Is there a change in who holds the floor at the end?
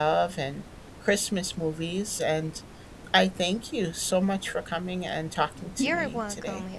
Yes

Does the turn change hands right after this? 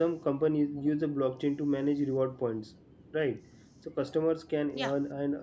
No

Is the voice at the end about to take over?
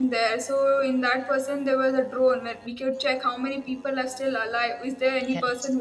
No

